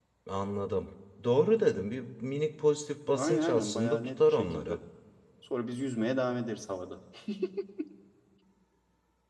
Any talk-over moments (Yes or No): Yes